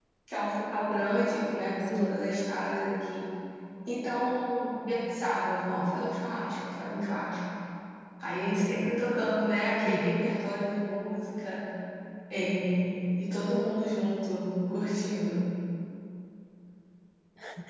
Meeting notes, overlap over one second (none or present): none